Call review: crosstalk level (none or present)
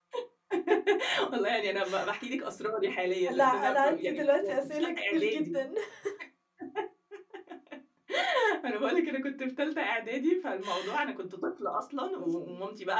present